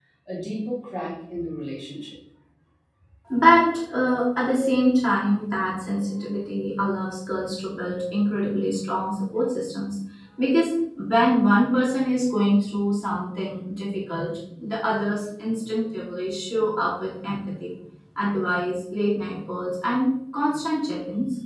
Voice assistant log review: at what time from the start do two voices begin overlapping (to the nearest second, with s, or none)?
none